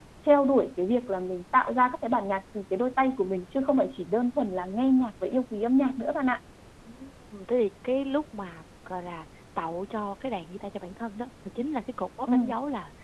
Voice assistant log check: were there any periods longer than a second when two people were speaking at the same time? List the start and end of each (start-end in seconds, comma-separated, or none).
none